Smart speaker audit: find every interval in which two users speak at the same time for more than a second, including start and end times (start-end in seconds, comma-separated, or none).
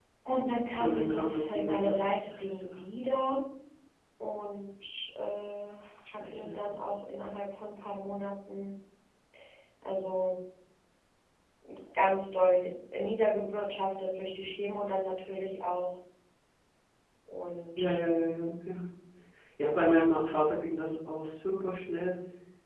0.8-2.8